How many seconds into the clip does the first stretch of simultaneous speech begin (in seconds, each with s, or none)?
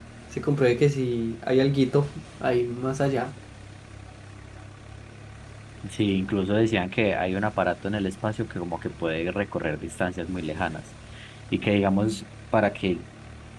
none